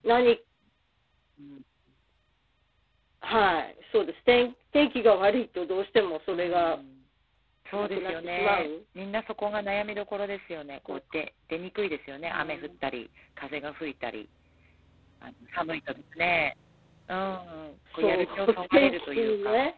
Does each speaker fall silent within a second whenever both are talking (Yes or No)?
No